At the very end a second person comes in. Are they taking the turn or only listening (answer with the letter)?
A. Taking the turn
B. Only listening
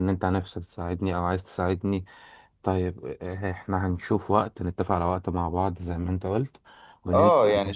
A